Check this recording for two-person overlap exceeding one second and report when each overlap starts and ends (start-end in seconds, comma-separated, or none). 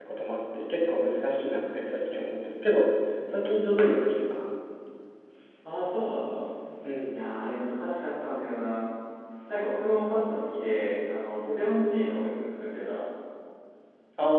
none